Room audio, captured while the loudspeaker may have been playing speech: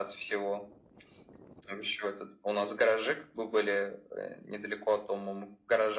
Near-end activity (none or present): none